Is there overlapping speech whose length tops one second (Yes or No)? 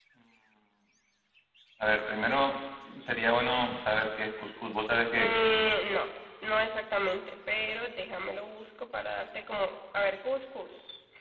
No